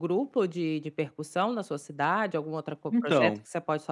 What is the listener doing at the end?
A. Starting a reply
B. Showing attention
B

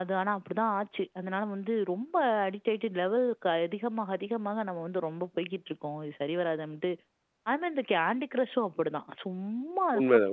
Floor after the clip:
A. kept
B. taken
B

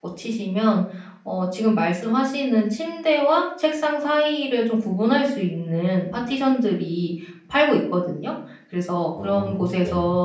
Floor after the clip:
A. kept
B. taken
A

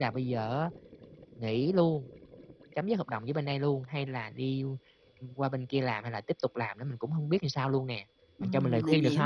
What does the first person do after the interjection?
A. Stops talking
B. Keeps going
A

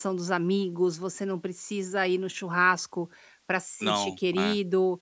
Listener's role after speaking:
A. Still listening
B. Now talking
A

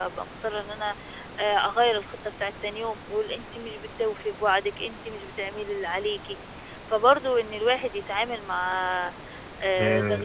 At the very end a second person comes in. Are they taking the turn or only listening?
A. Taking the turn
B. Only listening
B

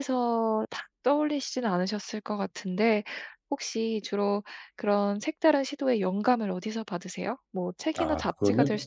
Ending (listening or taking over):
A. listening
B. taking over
A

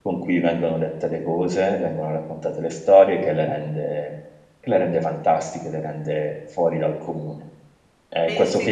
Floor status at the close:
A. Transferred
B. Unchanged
B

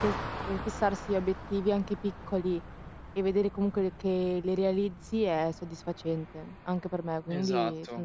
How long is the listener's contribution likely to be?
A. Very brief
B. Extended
B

